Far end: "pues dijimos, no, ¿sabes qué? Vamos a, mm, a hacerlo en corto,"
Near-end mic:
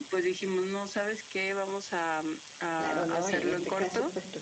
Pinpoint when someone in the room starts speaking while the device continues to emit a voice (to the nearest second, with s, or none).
3 s